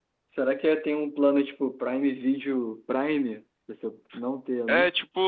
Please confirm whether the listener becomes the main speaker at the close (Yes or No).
Yes